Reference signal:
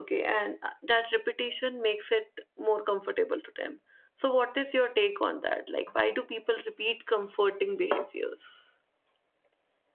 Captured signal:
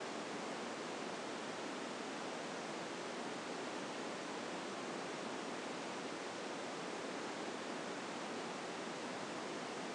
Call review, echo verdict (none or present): none